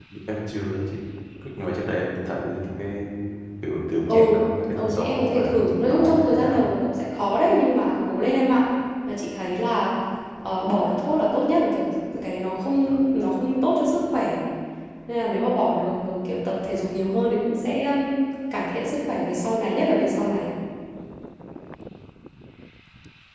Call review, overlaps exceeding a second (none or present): present